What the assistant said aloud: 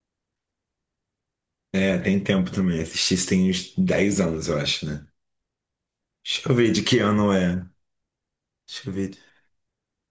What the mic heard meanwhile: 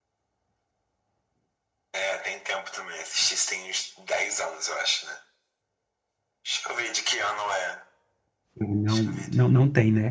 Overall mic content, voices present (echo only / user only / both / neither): both